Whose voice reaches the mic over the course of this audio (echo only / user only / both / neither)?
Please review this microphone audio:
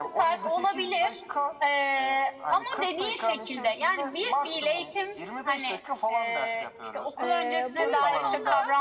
both